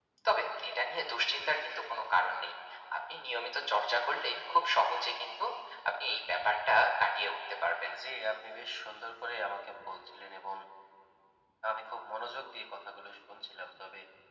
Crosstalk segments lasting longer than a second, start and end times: none

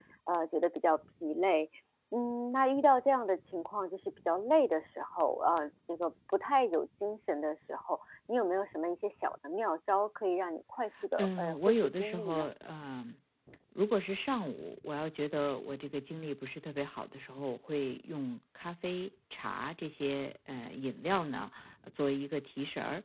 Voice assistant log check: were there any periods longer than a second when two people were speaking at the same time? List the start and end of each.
11.2-12.5

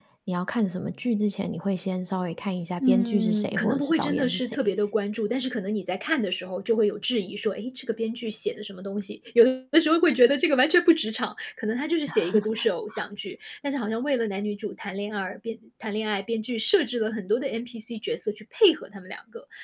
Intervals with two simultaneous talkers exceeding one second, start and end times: 2.8-4.6

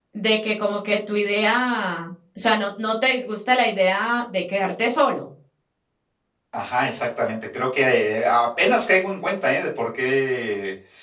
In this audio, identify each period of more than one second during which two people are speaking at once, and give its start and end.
none

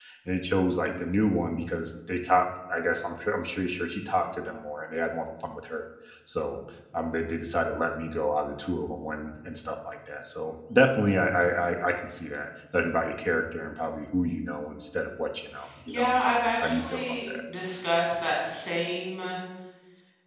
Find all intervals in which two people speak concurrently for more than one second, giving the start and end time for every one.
15.9-17.3

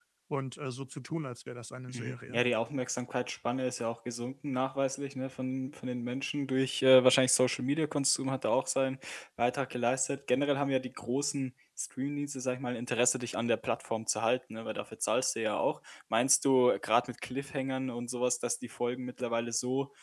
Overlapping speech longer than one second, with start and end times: none

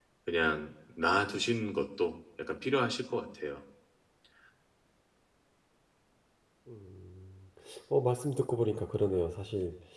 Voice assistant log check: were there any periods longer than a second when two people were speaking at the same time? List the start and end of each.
none

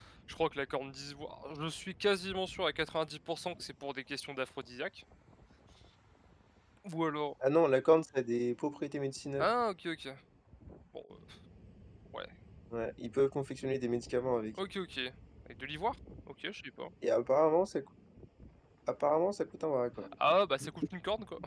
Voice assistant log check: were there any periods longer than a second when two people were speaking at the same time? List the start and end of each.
none

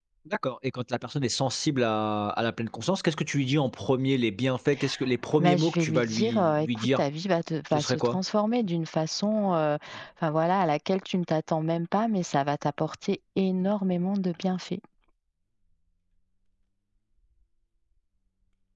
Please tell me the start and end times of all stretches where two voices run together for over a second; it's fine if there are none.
5.4-7.0

